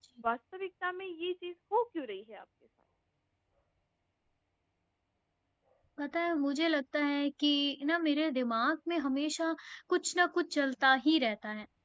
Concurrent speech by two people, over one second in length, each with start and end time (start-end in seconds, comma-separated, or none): none